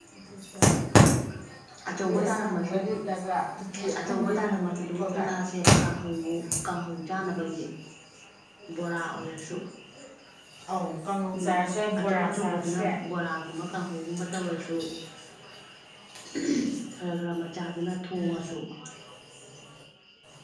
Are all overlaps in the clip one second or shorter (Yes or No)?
No